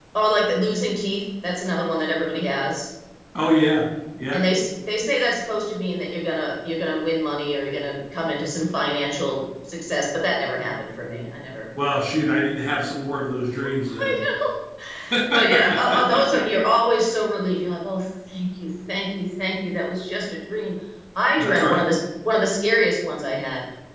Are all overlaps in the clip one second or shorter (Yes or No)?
No